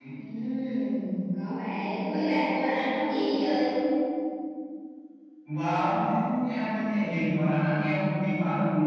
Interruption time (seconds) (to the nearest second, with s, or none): none